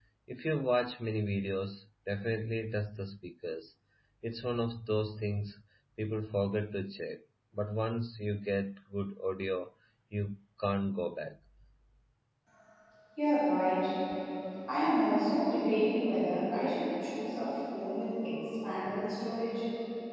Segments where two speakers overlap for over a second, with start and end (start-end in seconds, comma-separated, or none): none